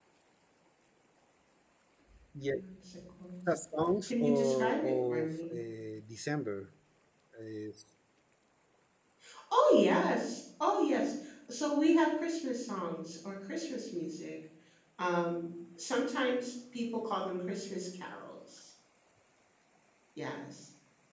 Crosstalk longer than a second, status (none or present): present